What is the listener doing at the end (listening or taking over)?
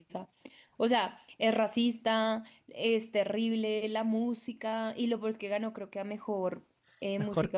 taking over